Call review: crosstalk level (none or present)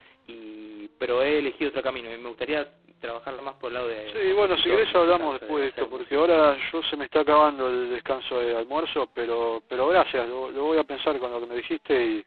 present